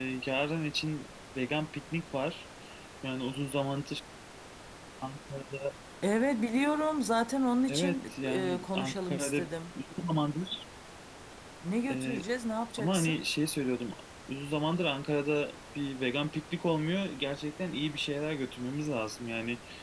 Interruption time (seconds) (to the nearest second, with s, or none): 8 s